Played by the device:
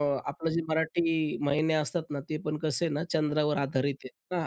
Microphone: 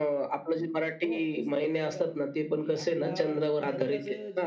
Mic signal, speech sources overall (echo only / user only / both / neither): both